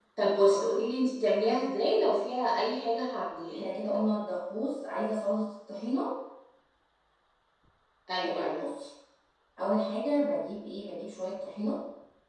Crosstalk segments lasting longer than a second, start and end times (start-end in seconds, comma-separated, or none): none